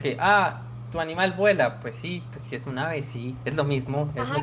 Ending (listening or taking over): taking over